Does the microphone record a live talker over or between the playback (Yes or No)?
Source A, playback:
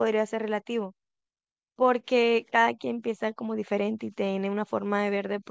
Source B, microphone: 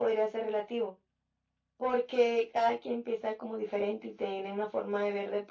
No